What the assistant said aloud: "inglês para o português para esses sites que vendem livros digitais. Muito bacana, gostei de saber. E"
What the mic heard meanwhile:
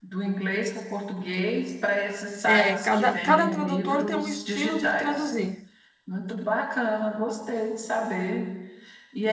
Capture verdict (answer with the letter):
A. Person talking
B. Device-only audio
A